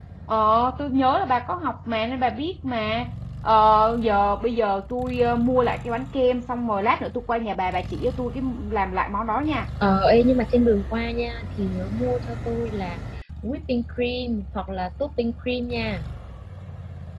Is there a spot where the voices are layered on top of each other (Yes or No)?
No